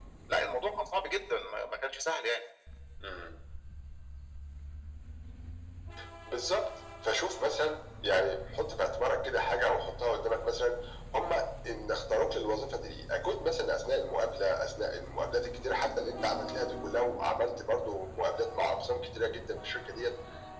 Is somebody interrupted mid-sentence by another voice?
No

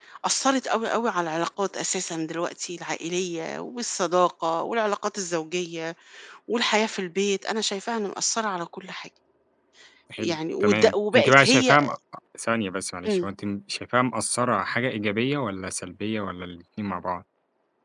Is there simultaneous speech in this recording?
Yes, from 10.2 s

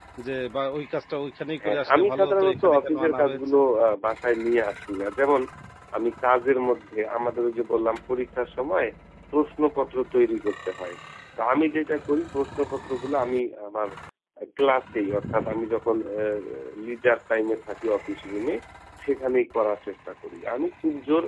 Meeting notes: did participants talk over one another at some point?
Yes, from 1.6 s

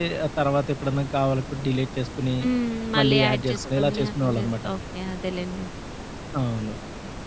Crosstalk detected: Yes, from 3.0 s

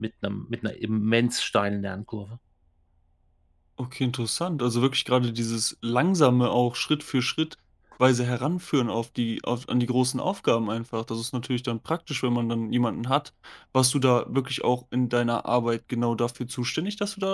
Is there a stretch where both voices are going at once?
No

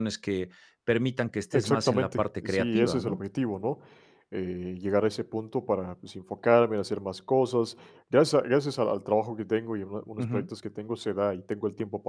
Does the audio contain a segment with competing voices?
Yes, from 1.5 s

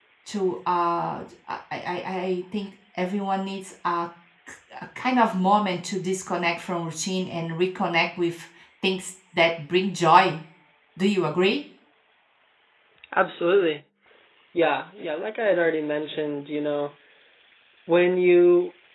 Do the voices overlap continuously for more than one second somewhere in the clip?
No

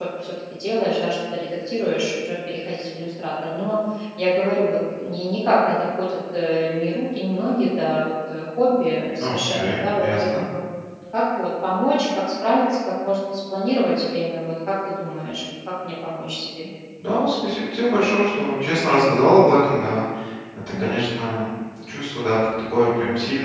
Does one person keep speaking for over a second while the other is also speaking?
Yes, from 9.2 s

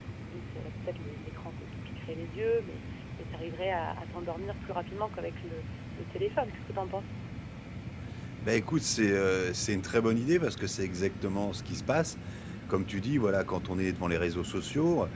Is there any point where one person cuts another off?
No

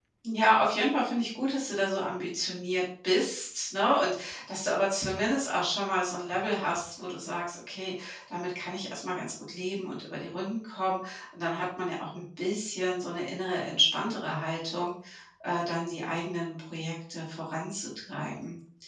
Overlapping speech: No

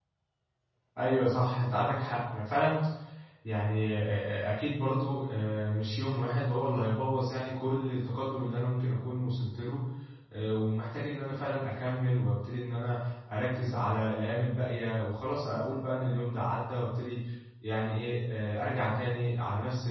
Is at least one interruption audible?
No

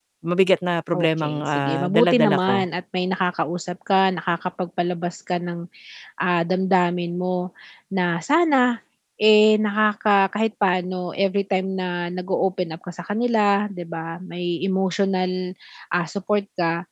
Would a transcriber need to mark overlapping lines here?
Yes, from 0.9 s

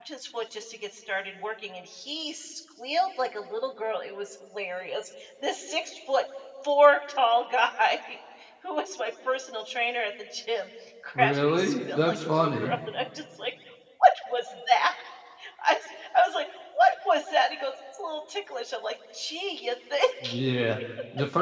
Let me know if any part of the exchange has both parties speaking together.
Yes, from 11.2 s

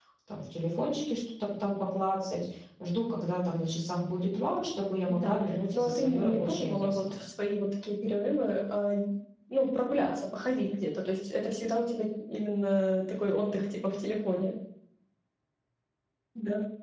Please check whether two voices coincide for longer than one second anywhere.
Yes, from 5.1 s

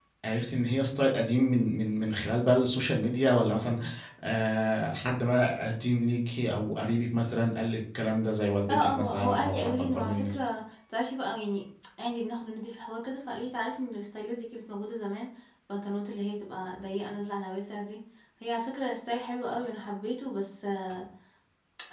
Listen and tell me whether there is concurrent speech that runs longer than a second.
Yes, from 8.7 s

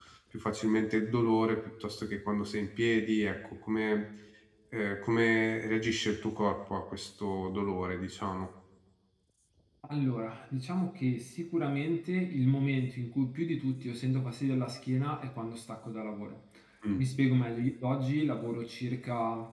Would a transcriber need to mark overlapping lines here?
No

